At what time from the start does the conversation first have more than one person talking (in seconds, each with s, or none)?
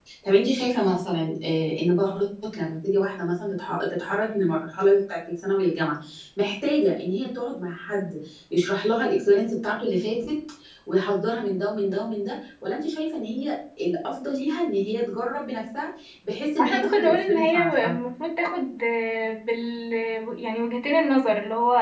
16.6 s